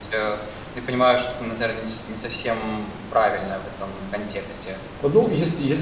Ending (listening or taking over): taking over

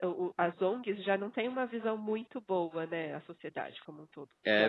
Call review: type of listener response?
taking over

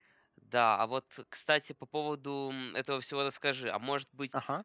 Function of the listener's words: listening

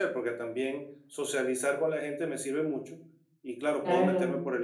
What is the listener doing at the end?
listening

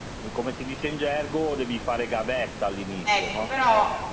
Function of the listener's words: taking over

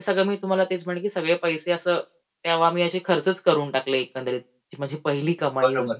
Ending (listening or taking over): taking over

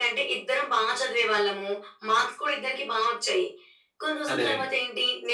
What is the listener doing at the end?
listening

